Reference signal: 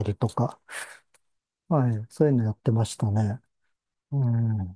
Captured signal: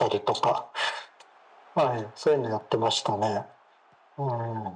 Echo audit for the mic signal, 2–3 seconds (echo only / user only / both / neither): echo only